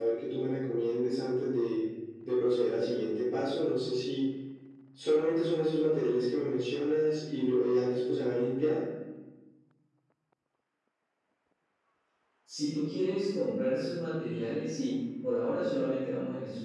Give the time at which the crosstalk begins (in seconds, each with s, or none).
none